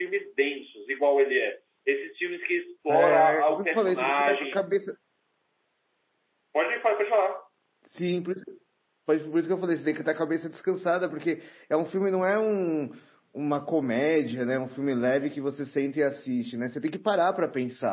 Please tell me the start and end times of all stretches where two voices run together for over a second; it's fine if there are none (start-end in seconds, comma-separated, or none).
2.9-4.6